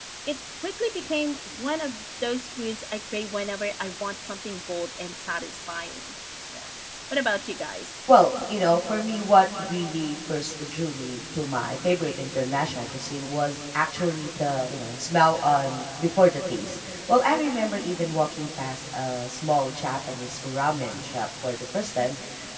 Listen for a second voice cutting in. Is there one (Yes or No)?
No